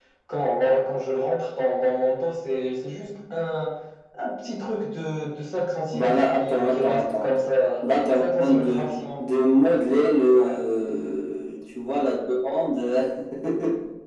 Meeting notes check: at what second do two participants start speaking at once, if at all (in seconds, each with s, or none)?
5.9 s